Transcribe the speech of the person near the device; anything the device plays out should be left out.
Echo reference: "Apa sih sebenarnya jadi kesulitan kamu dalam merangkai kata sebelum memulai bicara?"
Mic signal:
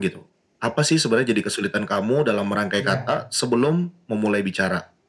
Iya,

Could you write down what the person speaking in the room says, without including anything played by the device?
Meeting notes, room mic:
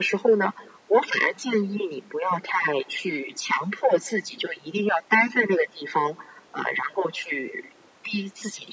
none

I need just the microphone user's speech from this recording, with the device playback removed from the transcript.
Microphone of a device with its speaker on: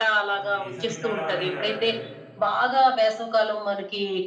అది వేసవి కాలం అనే గాదండి.

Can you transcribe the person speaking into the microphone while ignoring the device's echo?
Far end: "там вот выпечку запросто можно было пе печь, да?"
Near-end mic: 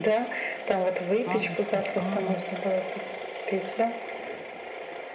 Сладости. А,

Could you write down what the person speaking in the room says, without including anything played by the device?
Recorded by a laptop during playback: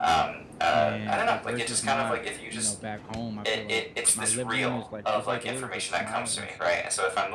And, like, versus my you know, back home, I feel like my living room is, like is, like, a little bit small, and so

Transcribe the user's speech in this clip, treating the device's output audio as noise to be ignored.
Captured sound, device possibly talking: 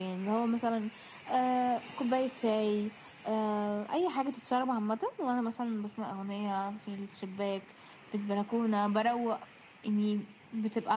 none

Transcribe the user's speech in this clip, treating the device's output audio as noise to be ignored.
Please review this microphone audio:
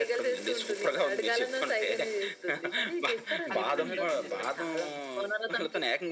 అది ఎప్పుడైనా మీరు ట్రై చేసారా?

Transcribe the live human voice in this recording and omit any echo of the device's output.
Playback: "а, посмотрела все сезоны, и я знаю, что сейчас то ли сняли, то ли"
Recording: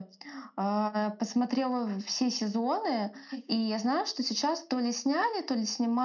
none

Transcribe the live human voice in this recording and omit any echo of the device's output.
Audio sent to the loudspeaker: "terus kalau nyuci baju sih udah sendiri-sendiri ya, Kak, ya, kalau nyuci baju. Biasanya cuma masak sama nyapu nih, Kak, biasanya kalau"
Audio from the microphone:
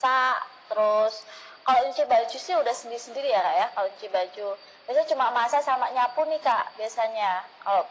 none

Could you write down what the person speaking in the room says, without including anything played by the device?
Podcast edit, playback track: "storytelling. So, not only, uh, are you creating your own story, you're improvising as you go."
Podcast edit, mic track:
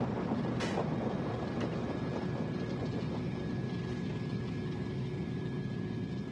none

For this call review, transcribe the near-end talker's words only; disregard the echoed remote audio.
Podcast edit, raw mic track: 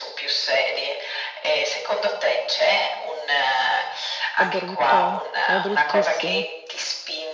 È brutto, eh. È bruttissimo.

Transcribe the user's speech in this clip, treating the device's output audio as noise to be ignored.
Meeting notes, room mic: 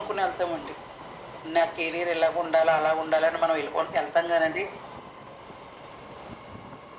none

